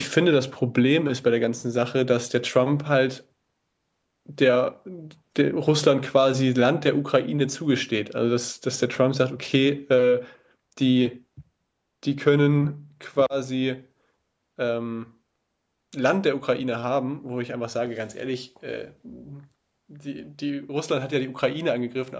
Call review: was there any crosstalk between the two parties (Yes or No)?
No